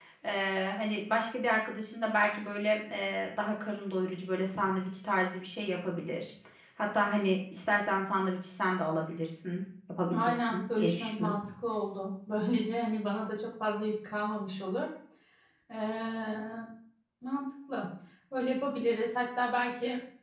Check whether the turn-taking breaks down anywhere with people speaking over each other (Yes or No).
Yes